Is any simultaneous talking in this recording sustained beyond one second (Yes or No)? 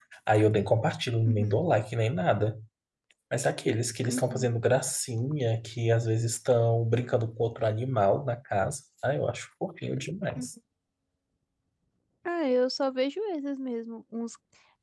No